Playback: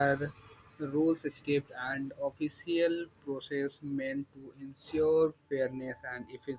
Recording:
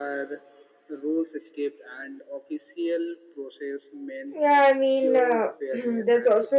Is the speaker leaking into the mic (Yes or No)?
Yes